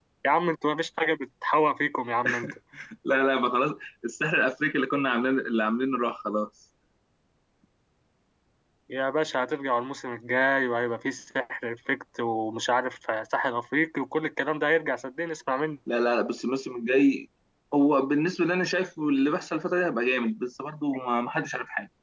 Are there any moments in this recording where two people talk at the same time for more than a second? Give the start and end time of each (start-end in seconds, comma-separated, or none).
none